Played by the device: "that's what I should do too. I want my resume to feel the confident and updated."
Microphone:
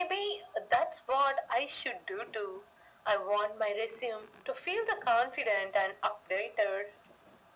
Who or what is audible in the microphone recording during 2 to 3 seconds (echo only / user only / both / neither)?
echo only